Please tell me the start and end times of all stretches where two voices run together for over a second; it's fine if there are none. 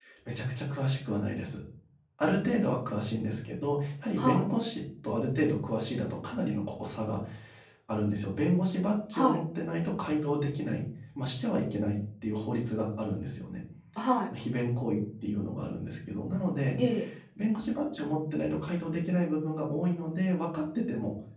none

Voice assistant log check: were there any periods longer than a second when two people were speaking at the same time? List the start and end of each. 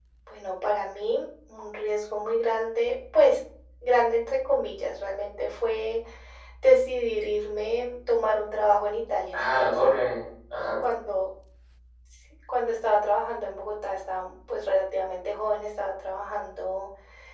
none

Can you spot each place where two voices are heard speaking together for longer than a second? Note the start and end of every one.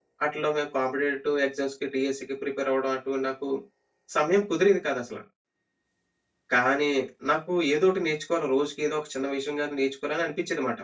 none

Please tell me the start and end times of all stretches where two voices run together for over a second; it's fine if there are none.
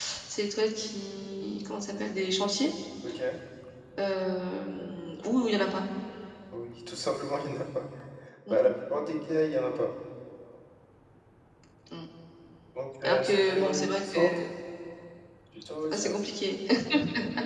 13.0-14.4

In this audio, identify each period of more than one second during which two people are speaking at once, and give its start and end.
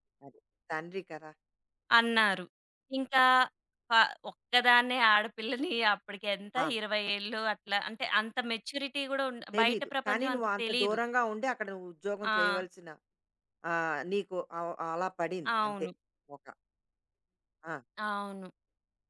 9.5-11.0

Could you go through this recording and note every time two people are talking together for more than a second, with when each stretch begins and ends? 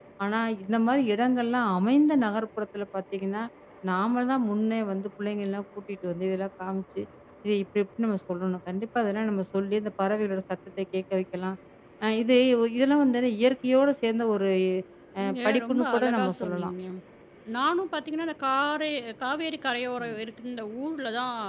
15.2-16.7

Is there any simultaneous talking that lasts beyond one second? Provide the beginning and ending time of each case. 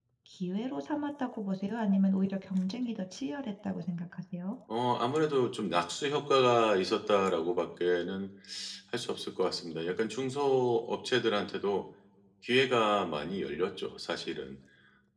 none

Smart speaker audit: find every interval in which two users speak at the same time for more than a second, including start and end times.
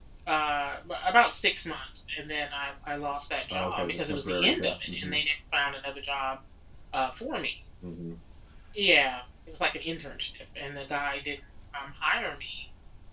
3.5-5.2

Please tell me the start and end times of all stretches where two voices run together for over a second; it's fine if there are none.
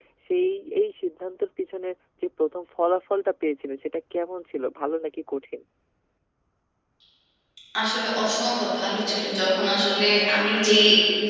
none

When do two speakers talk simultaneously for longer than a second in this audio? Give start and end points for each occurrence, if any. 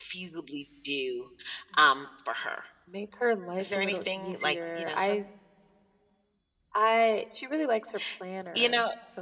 3.6-5.2

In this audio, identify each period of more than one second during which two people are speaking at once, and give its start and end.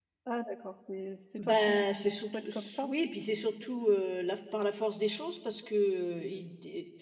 1.4-2.9

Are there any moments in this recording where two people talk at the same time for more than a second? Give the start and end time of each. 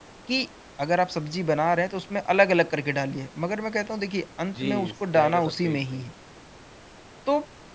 4.6-6.1

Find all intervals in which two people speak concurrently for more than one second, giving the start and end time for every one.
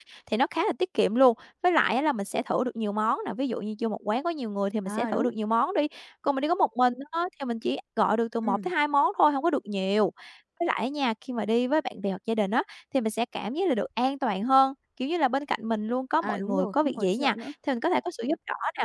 16.2-17.5

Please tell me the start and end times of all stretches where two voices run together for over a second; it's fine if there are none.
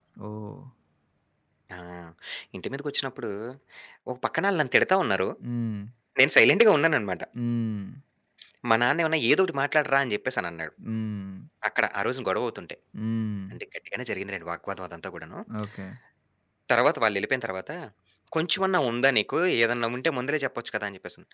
none

